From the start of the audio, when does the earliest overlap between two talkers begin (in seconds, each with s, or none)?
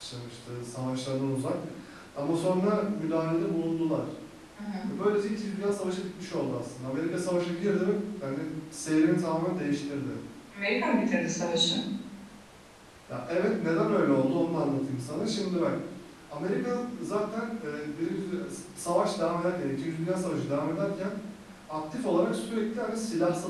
none